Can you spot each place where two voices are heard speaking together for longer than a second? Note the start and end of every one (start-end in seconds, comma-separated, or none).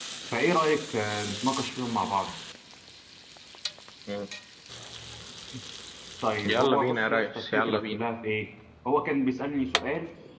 6.4-8.0